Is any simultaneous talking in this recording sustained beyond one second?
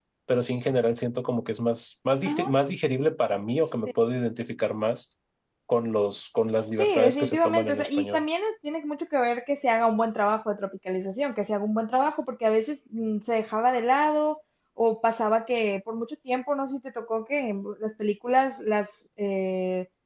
Yes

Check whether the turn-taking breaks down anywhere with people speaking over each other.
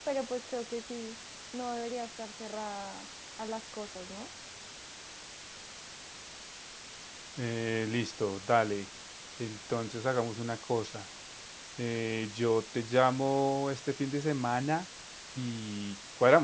No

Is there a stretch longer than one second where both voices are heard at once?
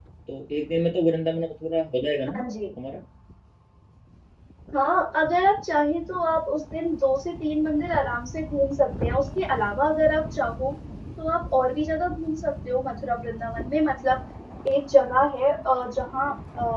No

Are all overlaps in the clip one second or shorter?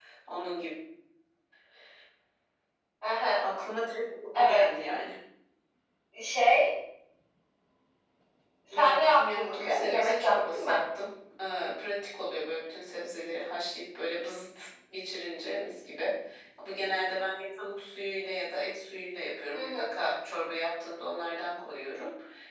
No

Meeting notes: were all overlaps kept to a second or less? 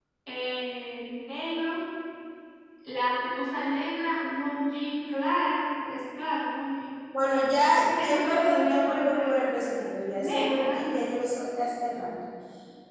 No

